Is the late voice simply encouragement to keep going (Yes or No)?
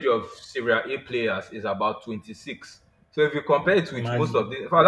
Yes